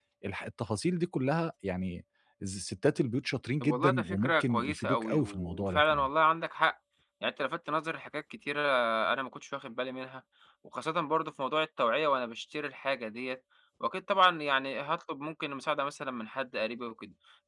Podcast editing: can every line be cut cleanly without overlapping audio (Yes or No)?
No